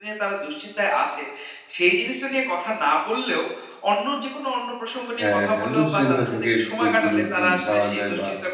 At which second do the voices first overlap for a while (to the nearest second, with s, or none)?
5 s